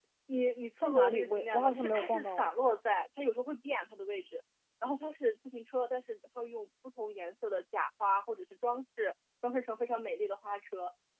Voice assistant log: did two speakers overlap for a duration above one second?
Yes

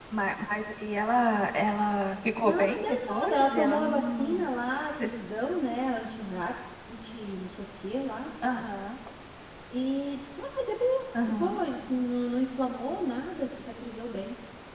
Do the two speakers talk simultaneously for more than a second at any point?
Yes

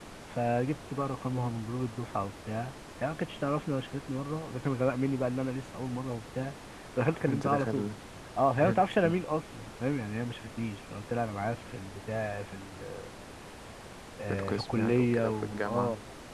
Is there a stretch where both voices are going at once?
Yes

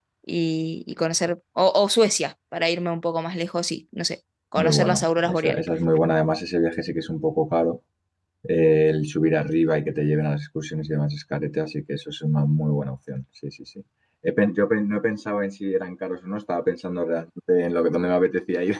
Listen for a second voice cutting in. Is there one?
Yes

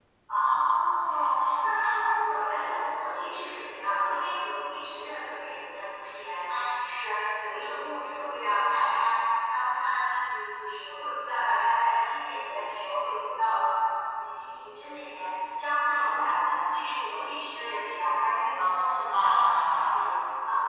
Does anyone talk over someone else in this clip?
Yes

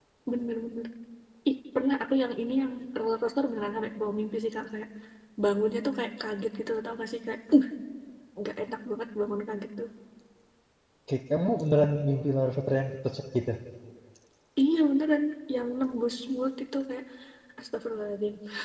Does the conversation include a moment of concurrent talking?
No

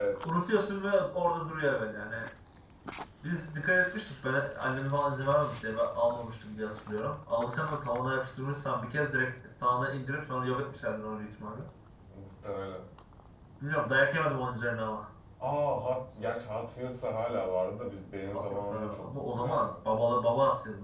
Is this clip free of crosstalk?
No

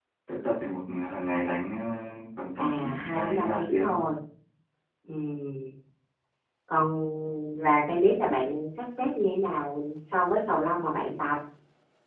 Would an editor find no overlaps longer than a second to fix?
No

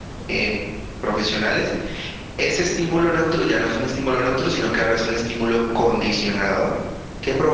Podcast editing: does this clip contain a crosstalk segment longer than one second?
No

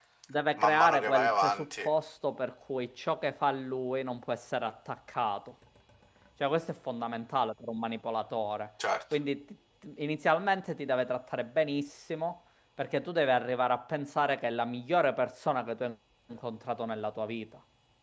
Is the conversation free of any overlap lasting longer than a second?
No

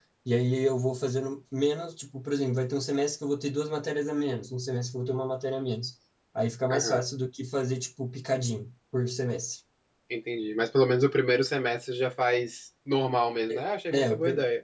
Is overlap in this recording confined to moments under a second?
Yes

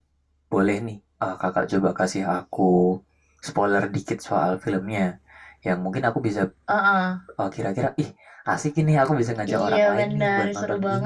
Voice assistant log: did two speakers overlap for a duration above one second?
Yes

